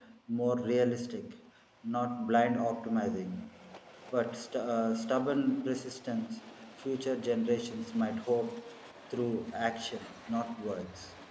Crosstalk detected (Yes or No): No